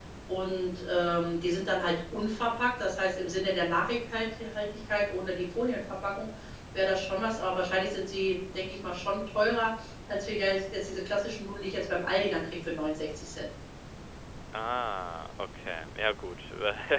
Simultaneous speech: No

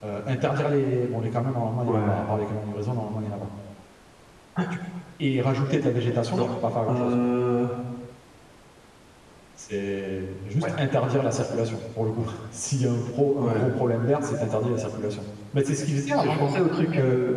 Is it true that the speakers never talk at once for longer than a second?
Yes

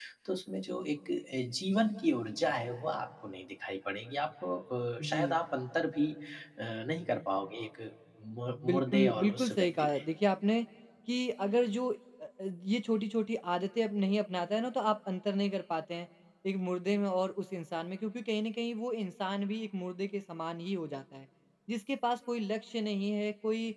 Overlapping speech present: Yes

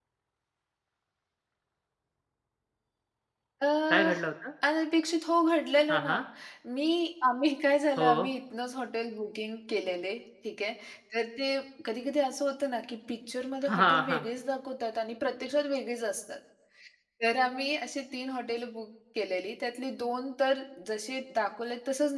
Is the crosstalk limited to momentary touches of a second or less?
Yes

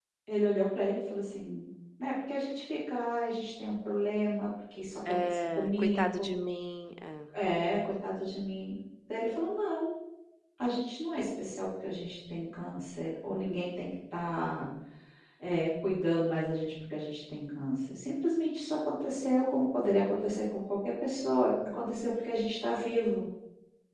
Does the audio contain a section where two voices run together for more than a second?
Yes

